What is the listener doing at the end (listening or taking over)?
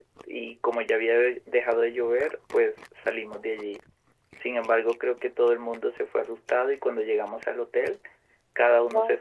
listening